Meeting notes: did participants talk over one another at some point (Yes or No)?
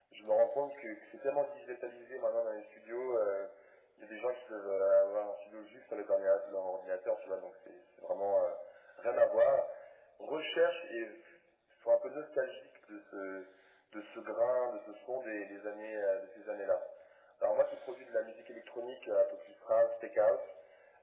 No